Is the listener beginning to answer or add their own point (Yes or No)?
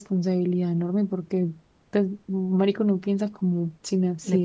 Yes